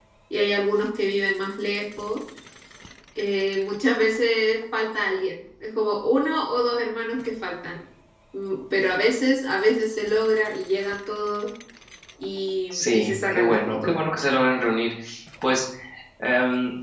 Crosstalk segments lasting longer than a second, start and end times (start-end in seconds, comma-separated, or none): 12.7-13.9